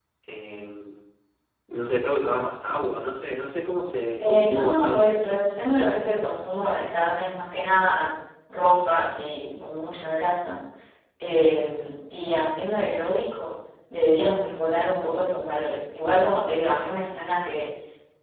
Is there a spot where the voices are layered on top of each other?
Yes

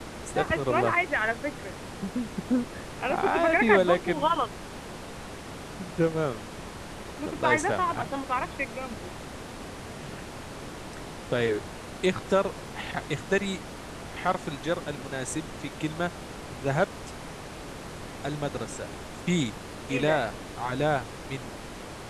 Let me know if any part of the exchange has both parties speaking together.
Yes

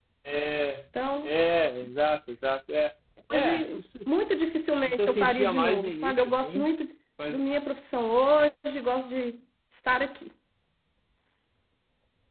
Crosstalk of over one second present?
Yes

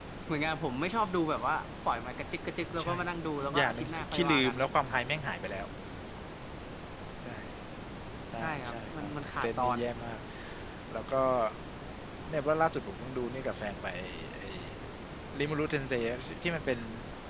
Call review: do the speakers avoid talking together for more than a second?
No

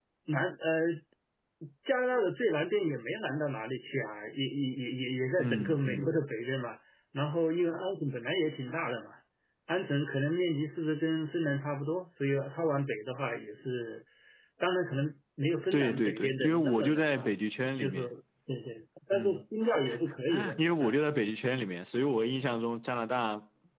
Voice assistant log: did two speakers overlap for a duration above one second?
Yes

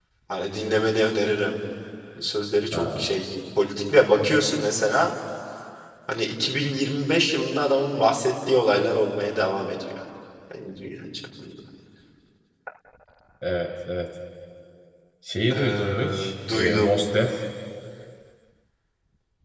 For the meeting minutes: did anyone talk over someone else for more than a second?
Yes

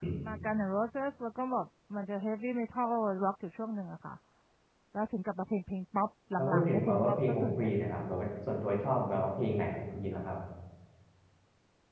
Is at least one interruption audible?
Yes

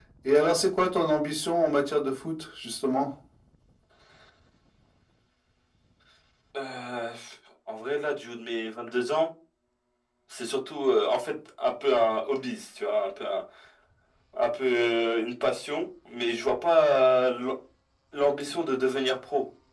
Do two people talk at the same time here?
No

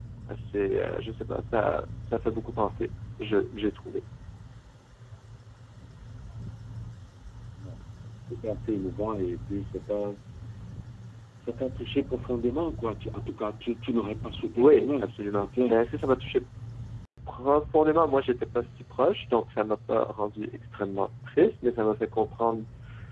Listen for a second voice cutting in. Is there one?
Yes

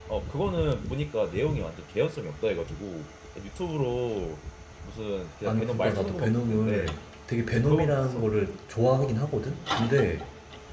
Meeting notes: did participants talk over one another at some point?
Yes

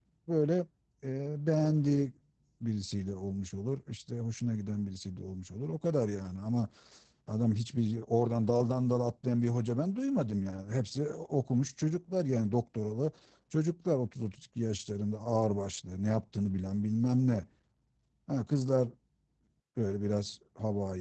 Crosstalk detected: No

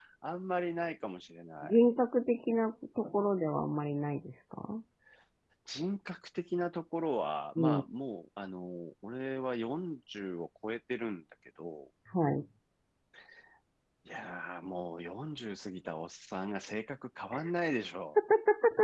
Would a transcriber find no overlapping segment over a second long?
Yes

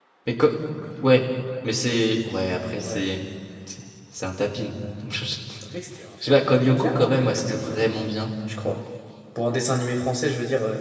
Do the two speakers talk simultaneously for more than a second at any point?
Yes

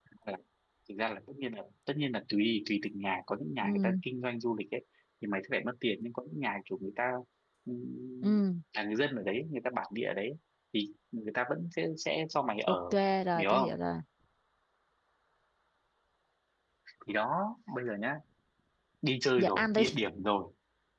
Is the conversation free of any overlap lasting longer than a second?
Yes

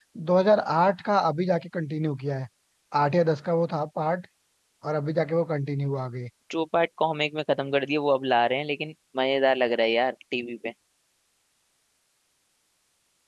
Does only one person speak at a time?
Yes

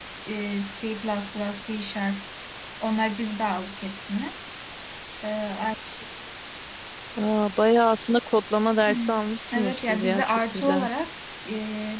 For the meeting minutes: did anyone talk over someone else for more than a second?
Yes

